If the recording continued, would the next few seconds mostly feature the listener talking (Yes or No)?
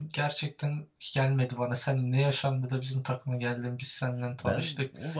Yes